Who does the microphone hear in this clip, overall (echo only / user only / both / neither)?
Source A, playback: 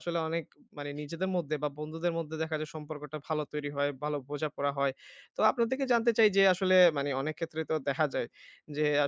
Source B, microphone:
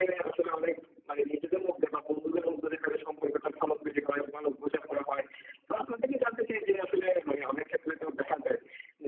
echo only